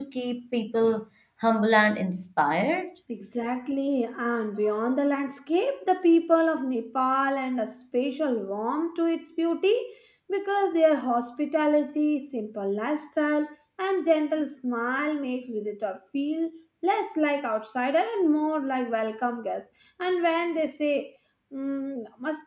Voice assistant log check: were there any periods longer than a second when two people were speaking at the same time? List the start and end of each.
none

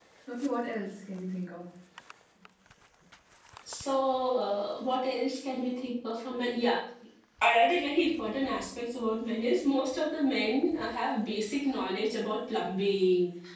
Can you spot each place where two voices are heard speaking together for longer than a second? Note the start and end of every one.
none

